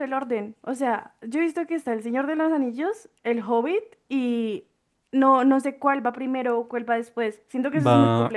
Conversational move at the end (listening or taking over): taking over